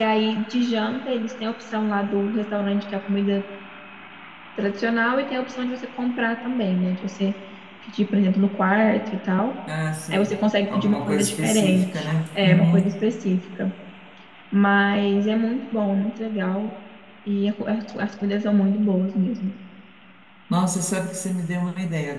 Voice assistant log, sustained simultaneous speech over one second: present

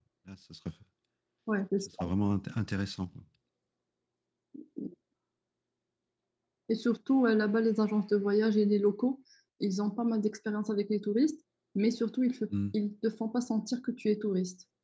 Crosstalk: none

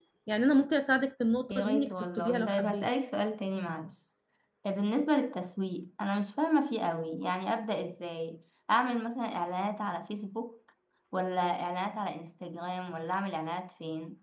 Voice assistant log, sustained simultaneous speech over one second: present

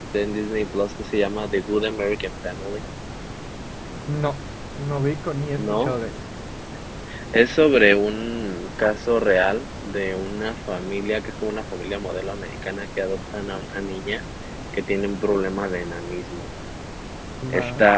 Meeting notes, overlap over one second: none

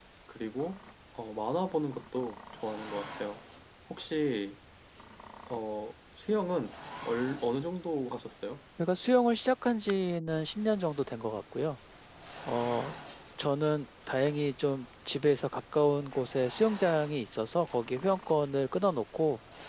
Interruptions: none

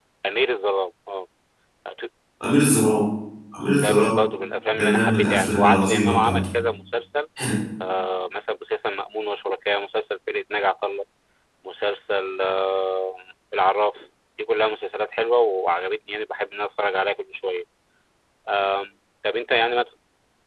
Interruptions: present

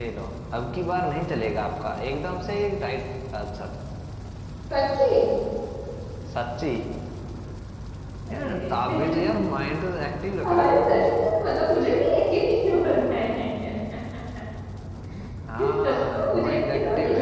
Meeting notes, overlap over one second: present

